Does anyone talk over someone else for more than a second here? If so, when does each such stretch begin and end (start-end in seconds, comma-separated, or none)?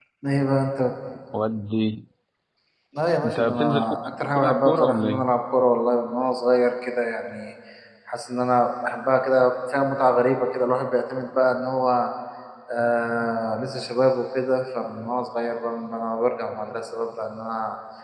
3.2-5.3